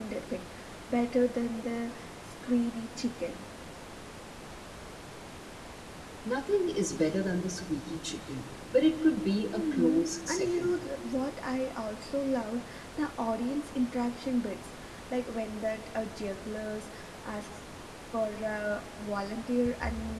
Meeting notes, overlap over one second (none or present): present